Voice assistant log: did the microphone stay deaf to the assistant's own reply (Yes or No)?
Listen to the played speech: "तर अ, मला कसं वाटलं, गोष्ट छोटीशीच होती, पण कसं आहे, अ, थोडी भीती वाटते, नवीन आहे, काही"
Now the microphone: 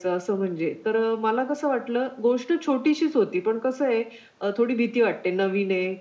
No